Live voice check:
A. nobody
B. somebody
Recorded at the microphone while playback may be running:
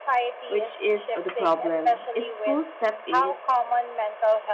B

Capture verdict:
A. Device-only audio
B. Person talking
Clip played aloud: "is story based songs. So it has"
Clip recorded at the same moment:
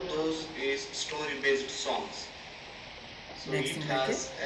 B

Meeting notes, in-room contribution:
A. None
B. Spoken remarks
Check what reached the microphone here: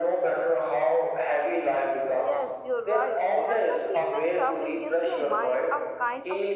B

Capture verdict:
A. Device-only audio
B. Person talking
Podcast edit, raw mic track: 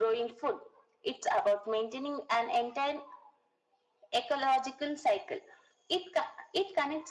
A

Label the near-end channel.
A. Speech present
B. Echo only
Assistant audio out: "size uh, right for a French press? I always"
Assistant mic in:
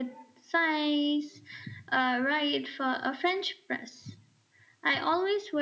B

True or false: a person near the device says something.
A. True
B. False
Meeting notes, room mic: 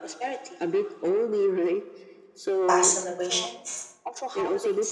A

